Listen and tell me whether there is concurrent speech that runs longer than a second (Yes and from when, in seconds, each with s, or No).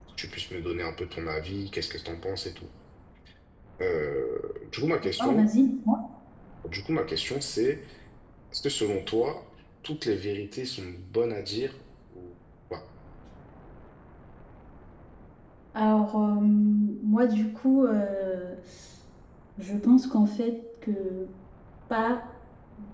No